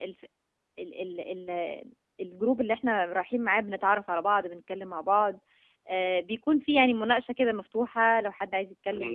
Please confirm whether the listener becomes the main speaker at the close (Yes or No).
Yes